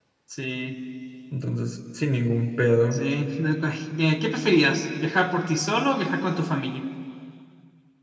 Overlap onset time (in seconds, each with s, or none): none